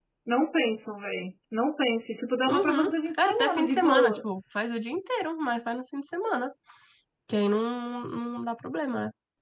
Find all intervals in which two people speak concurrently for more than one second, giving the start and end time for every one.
2.5-4.2

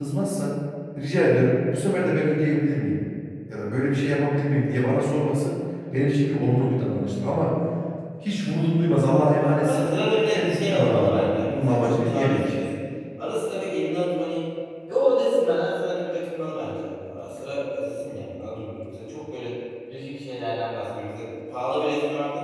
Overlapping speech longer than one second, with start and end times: 10.3-12.6

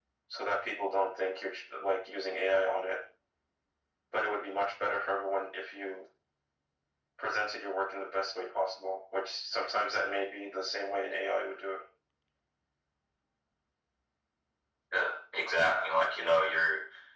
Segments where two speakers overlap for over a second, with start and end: none

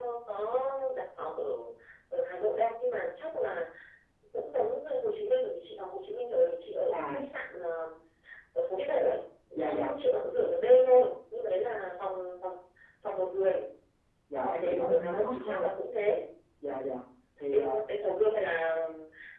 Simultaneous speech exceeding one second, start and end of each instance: 14.4-15.7

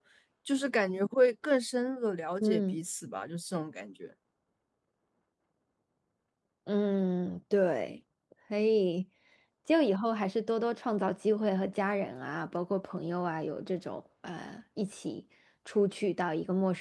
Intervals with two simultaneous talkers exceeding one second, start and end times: none

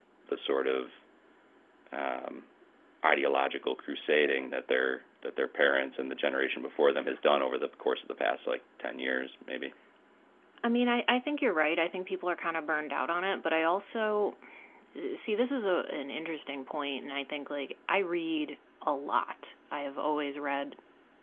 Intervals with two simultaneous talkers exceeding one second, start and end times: none

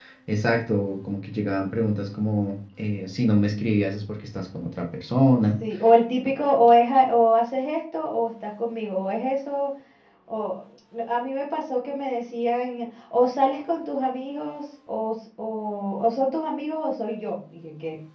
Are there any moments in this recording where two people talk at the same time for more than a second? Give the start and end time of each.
none

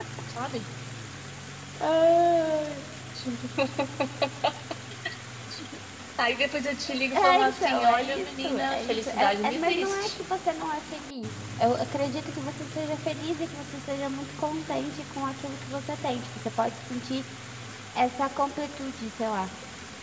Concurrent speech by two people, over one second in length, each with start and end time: 7.1-10.1

